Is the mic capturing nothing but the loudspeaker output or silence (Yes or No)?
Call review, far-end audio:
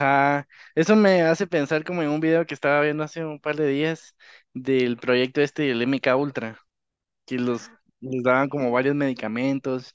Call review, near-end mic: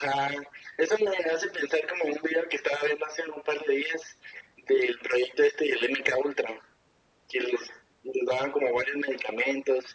Yes